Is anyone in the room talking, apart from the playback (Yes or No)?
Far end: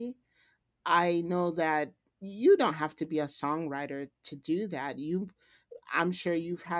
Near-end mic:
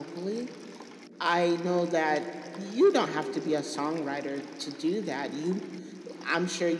No